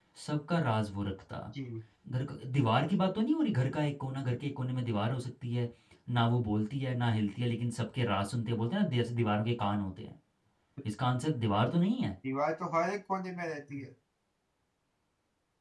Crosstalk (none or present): none